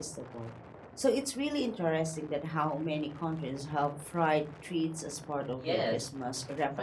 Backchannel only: No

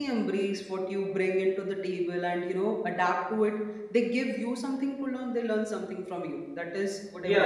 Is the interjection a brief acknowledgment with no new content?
No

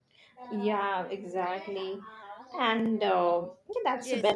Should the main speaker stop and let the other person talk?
Yes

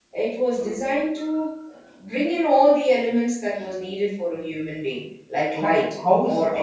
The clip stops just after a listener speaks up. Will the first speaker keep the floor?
No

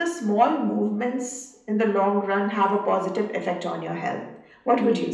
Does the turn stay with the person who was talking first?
No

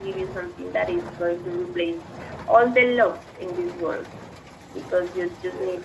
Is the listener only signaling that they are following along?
Yes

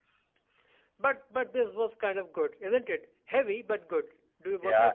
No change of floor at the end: No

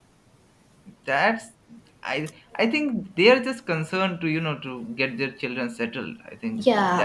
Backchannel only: No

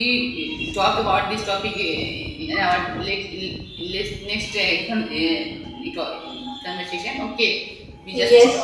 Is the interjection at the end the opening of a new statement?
Yes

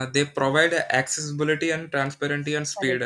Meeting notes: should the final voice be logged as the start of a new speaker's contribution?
Yes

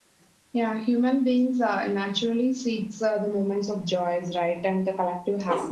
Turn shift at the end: No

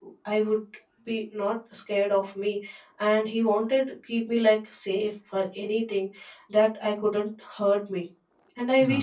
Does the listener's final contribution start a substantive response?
No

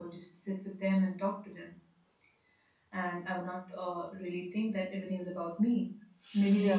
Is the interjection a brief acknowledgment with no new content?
Yes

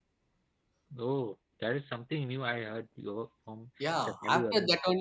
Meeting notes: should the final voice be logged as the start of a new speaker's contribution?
Yes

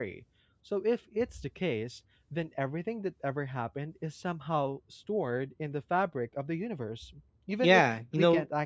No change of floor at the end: No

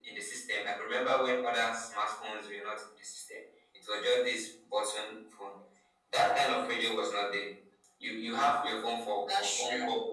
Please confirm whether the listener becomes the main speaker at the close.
No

